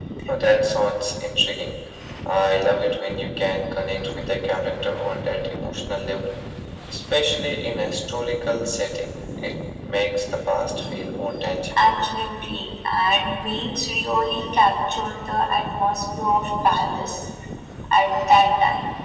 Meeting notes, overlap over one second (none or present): none